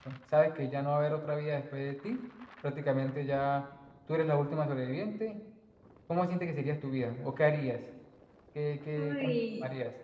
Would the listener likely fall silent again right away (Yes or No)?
No